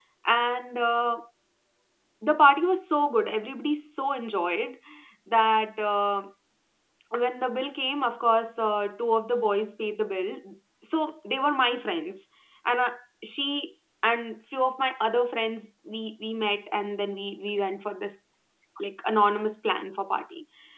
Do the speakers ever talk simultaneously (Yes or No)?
No